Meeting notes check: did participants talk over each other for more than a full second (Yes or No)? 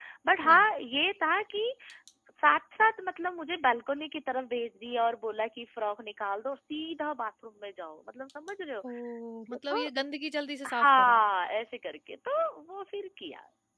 No